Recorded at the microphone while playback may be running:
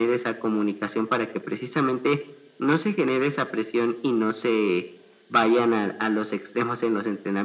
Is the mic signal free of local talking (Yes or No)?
Yes